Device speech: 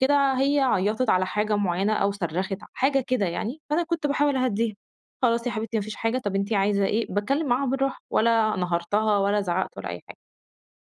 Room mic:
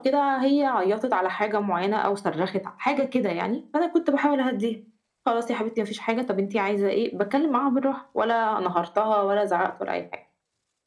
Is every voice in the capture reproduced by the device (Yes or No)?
Yes